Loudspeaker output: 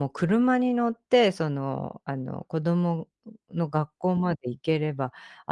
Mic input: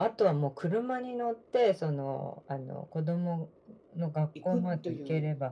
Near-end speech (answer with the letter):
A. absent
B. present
B